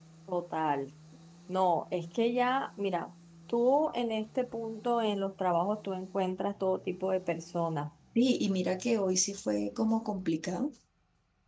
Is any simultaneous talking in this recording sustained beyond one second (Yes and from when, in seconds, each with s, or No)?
No